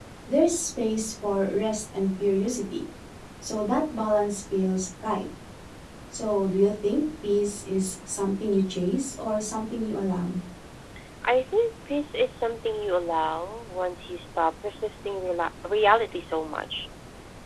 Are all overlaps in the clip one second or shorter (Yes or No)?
Yes